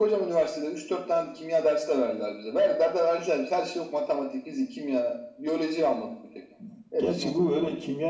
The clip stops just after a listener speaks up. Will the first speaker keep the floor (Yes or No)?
No